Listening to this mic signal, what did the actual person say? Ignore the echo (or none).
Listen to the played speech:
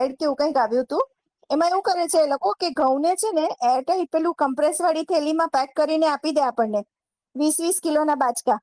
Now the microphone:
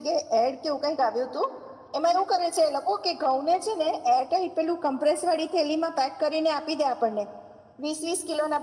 none